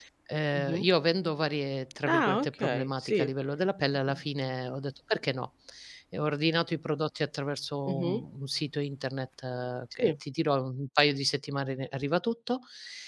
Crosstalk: present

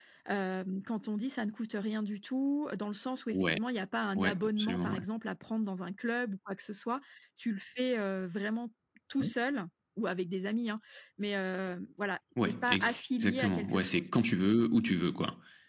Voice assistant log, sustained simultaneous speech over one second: present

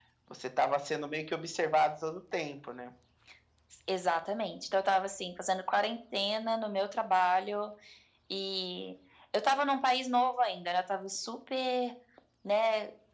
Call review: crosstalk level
none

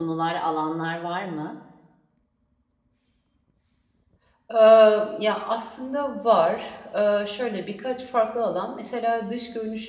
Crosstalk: none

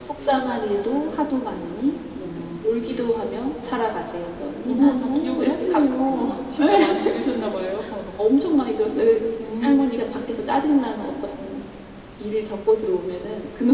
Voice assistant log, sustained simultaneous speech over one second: present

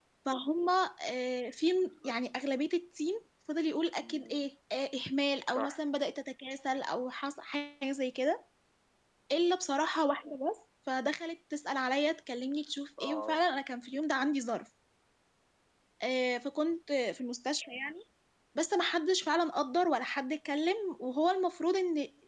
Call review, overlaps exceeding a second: none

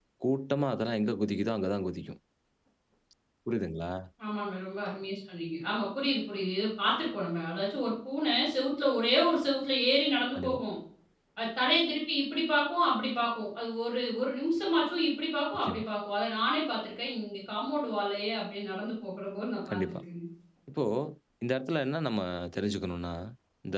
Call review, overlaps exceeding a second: none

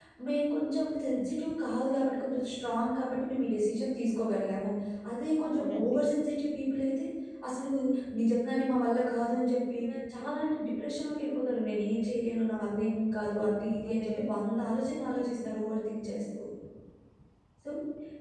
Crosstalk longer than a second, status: none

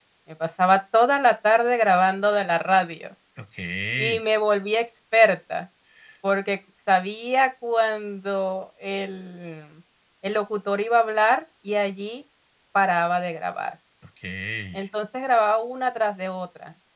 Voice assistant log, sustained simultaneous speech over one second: none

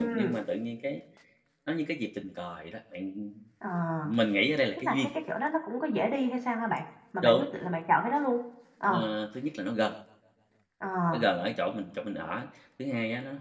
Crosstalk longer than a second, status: none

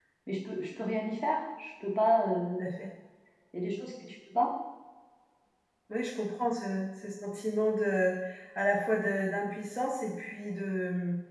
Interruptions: none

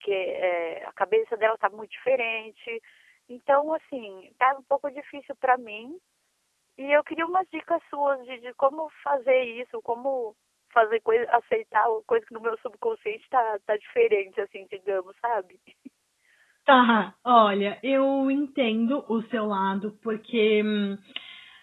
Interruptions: none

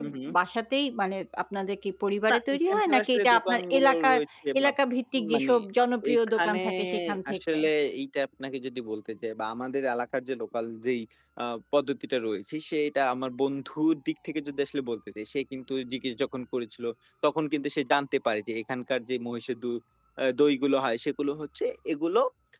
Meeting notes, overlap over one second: present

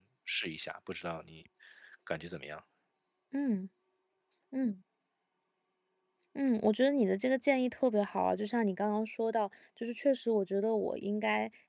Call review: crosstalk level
none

